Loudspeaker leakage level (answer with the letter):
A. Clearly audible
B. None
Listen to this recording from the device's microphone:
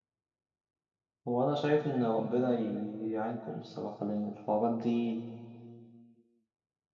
B